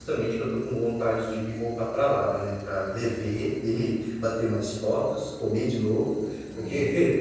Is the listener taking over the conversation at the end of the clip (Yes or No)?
No